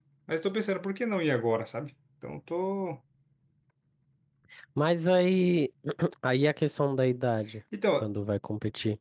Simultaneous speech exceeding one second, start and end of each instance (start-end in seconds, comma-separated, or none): none